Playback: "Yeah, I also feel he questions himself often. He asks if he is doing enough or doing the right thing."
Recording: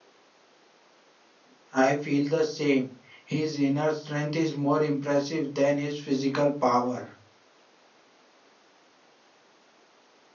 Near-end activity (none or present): present